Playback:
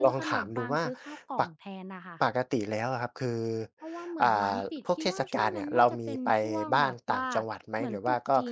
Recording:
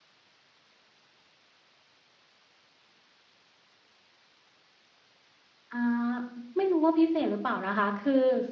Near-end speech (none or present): present